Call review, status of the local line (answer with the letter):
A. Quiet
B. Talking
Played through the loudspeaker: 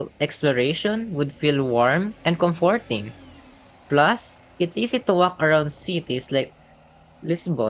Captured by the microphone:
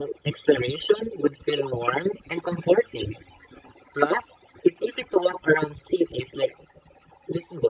A